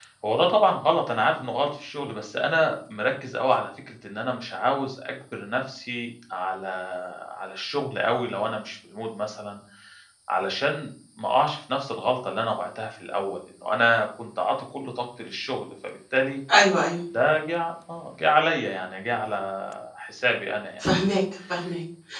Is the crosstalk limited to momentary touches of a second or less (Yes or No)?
Yes